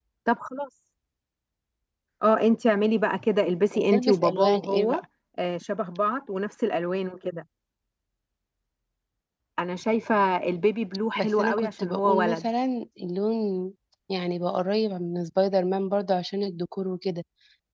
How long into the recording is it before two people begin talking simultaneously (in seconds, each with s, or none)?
3.7 s